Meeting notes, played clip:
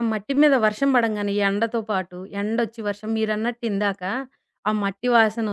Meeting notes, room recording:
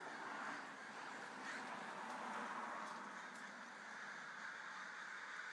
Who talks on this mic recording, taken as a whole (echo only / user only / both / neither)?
neither